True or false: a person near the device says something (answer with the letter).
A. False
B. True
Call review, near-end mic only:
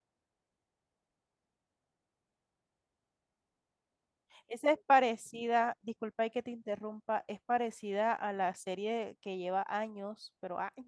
B